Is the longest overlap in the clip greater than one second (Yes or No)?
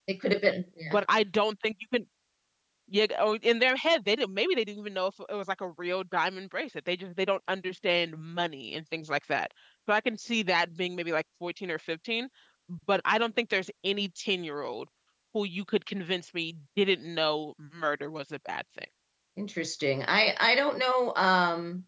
No